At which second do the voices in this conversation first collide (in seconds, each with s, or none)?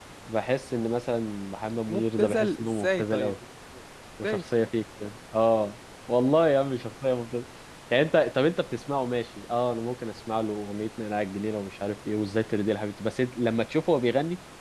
1.9 s